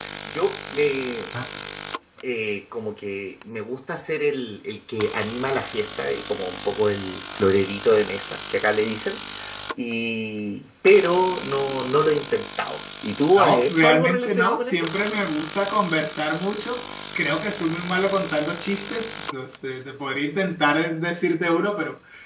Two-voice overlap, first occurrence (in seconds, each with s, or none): 13.4 s